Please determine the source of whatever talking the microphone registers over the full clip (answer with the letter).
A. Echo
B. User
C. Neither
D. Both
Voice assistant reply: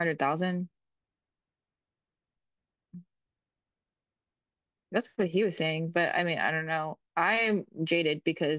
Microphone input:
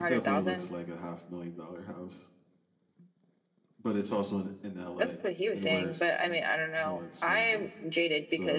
D